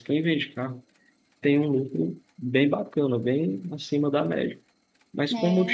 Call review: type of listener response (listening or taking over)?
listening